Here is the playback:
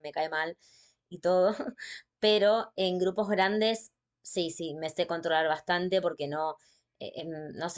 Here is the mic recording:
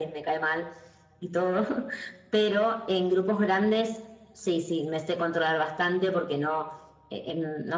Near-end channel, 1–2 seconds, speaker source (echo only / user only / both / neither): echo only